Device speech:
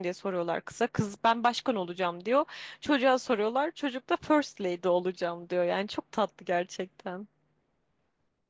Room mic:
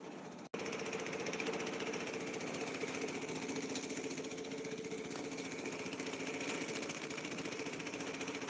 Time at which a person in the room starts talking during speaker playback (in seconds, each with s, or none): none